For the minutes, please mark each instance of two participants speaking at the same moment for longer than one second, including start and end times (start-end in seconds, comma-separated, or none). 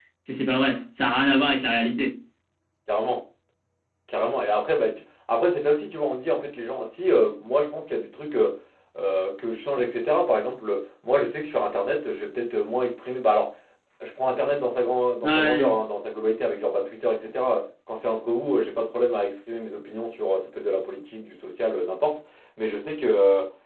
none